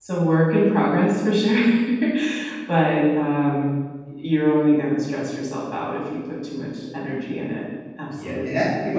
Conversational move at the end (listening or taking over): taking over